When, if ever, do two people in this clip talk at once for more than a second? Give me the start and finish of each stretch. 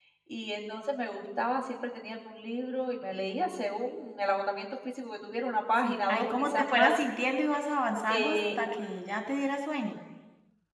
5.7-7.0

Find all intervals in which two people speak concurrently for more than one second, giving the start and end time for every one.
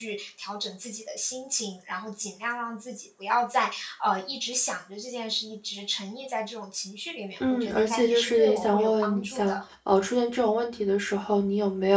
7.5-9.6

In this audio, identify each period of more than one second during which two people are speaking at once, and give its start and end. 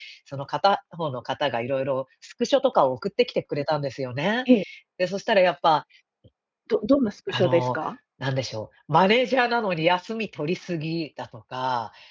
none

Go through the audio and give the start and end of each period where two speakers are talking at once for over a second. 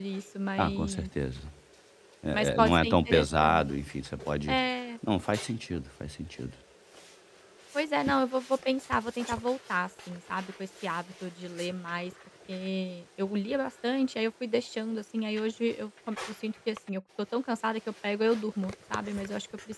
2.3-3.6

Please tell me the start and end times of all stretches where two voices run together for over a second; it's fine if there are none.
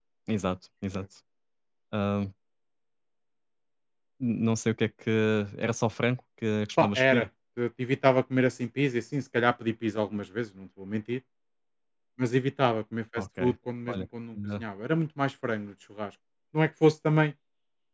none

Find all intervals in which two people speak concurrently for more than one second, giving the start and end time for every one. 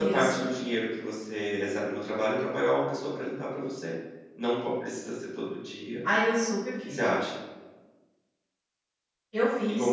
none

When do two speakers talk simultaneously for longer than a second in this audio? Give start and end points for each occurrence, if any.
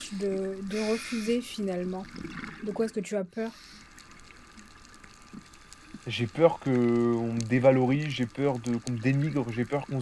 none

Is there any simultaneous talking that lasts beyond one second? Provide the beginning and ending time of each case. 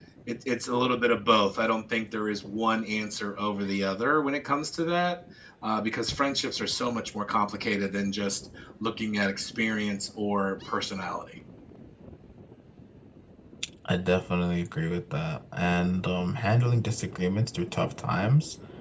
none

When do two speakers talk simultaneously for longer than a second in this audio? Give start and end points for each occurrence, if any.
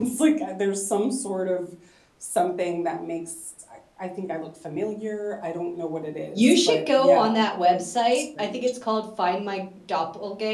6.3-8.6

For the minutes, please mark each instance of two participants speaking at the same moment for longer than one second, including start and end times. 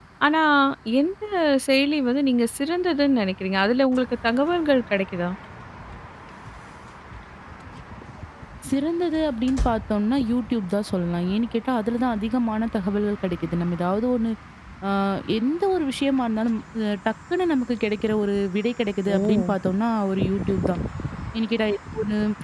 none

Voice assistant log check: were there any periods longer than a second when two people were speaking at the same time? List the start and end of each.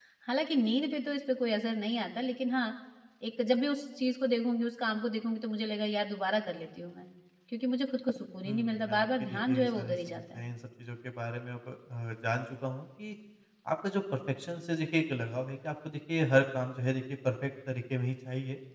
8.4-10.4

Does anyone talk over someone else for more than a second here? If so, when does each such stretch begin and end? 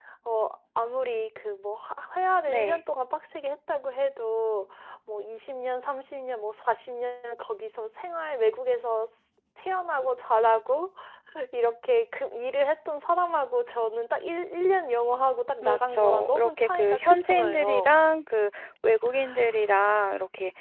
15.6-17.9

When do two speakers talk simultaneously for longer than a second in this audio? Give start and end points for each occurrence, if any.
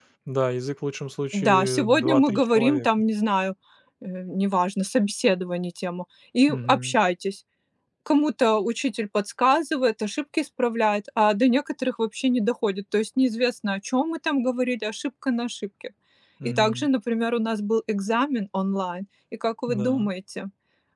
1.3-2.9

